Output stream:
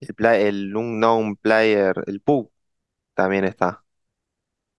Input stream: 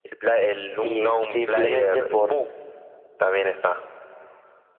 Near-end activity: present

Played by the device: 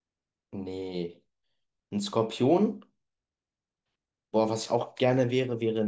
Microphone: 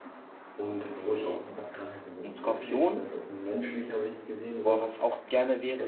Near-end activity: present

